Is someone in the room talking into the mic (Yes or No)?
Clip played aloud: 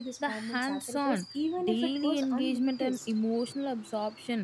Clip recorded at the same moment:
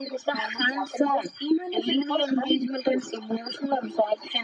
No